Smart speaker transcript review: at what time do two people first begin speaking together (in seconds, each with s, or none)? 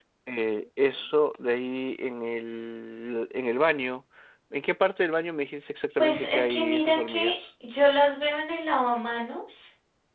6.0 s